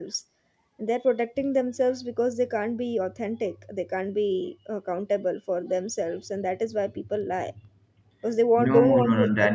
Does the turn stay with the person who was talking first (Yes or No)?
No